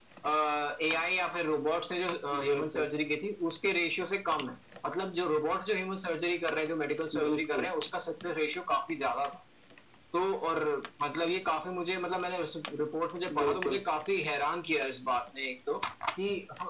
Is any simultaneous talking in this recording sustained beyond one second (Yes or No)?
No